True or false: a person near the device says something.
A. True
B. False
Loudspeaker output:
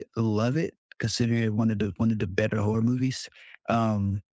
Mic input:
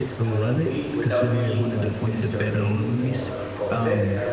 A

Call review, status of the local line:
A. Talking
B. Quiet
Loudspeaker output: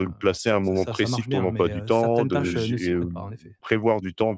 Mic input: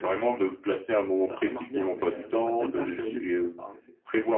B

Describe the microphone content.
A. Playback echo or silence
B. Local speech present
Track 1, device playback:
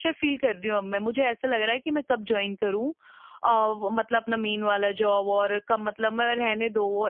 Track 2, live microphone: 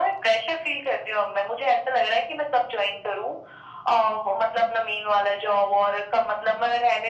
A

